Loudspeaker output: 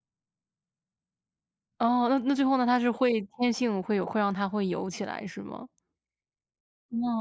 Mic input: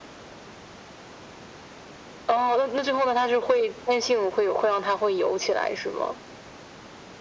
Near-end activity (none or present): none